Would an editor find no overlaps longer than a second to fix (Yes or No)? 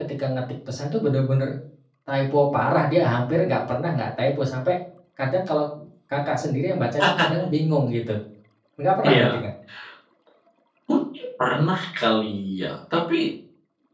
Yes